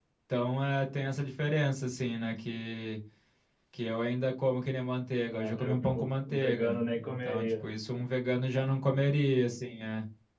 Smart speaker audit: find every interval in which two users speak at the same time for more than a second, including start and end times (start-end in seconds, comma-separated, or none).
5.3-7.6